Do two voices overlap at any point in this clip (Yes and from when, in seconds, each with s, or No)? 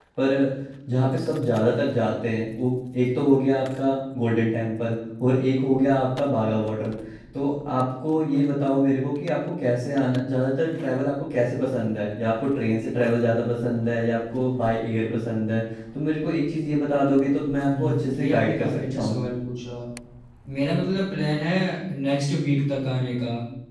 Yes, from 17.7 s